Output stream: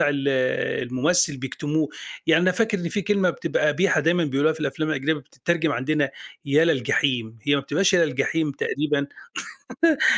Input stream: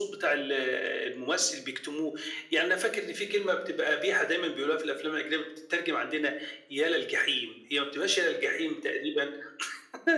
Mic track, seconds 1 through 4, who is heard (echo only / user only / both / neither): echo only